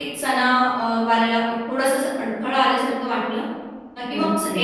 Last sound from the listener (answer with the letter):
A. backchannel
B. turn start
A